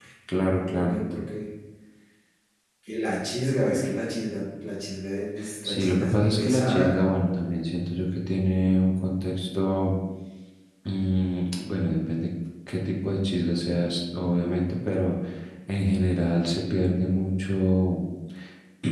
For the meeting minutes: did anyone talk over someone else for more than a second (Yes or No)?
Yes